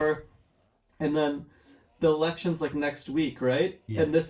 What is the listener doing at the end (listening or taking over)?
listening